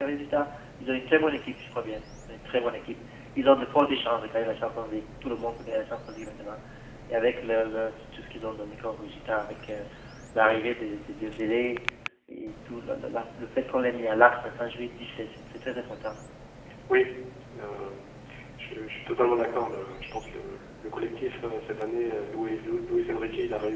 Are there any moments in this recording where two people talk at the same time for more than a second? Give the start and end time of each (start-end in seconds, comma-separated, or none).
none